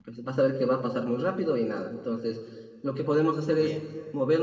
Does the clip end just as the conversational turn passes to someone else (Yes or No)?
No